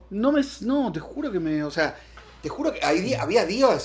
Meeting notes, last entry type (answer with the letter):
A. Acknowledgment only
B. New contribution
A